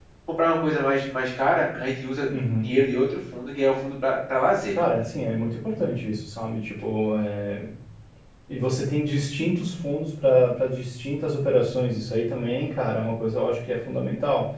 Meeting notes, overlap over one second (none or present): none